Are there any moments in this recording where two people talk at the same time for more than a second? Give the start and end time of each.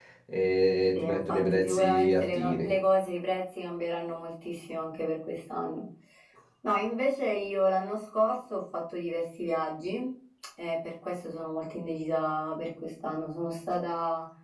1.0-2.7

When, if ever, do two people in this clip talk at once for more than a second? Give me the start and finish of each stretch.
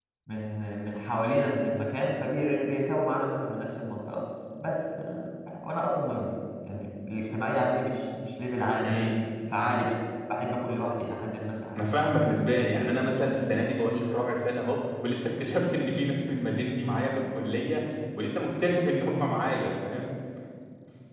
none

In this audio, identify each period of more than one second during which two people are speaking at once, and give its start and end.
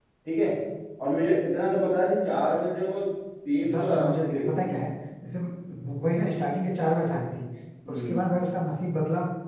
3.6-4.8

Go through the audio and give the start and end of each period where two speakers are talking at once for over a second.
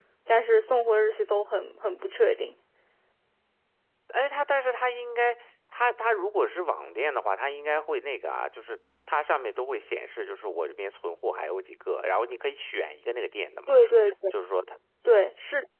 none

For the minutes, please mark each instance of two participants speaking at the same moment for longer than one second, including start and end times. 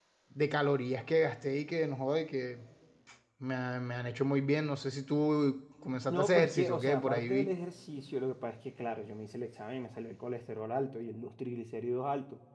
6.1-7.5

